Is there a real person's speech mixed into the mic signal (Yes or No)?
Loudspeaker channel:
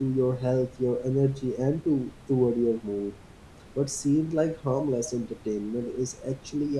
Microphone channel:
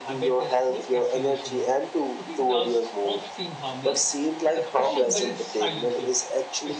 Yes